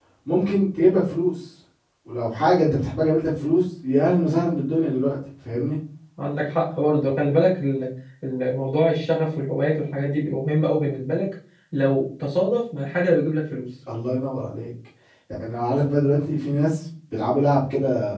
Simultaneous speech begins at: none

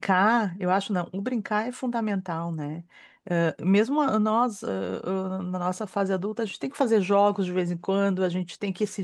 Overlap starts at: none

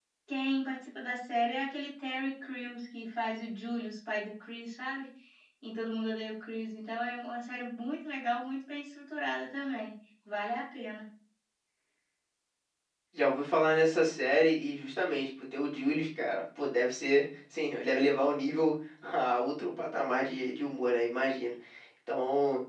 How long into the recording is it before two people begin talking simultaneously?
none

